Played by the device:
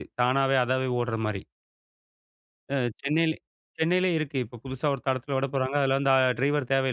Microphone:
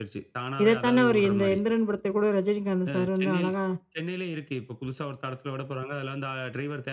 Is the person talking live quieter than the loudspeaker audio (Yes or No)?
No